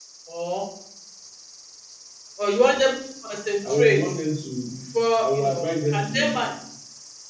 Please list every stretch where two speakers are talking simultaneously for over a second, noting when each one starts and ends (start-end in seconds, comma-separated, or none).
5.2-6.5